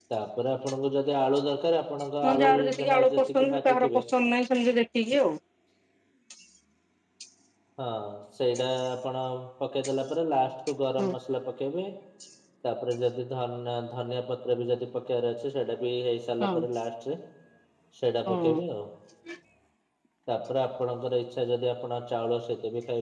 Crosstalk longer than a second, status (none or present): present